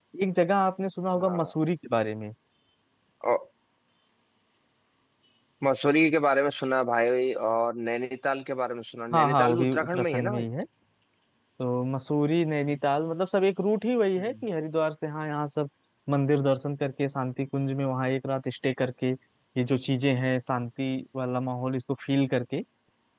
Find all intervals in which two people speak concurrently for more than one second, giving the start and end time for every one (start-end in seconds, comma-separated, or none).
9.1-10.4